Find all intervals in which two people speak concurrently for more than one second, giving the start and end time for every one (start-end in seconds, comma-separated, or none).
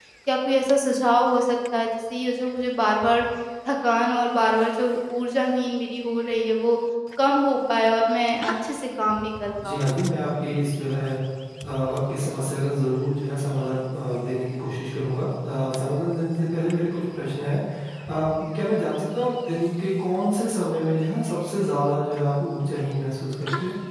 none